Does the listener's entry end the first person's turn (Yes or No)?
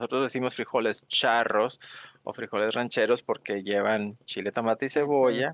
No